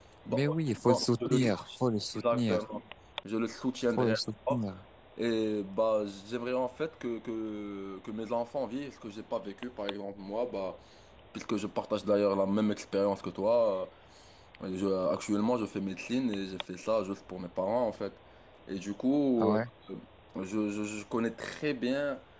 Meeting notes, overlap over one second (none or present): present